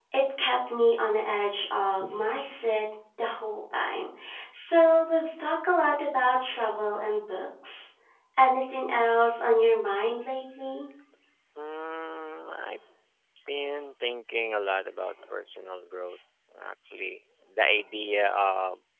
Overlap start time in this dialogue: none

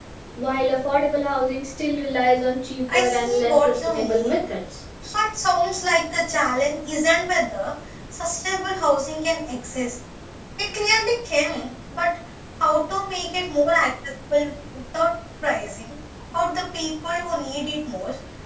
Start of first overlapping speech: 2.9 s

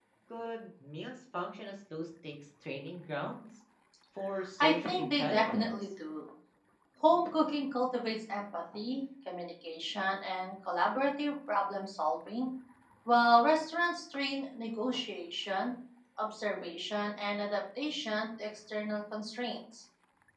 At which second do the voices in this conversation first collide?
4.6 s

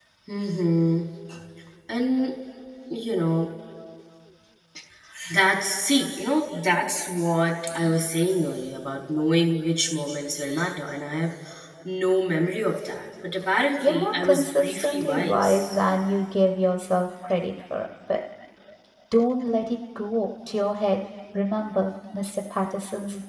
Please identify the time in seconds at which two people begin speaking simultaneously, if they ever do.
13.8 s

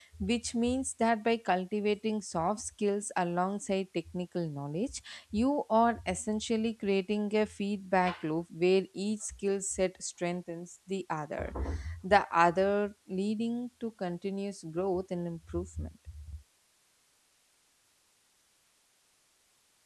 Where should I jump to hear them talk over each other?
none

